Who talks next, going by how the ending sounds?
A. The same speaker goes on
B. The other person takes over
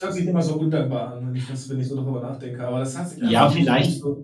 B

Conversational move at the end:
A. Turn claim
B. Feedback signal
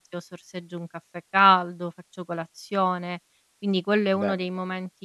B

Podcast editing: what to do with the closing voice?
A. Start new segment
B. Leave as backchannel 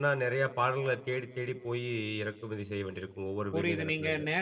A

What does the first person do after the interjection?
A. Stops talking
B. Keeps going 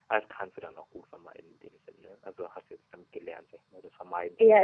A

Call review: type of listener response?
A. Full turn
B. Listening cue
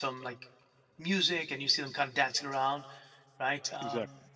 B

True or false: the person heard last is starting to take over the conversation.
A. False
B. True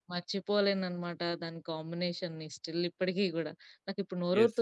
B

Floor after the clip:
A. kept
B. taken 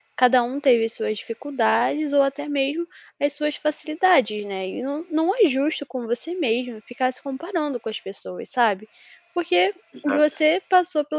A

